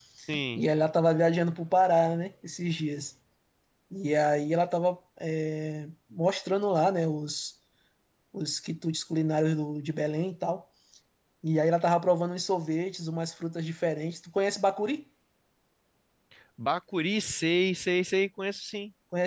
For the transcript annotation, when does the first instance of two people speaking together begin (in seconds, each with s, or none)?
none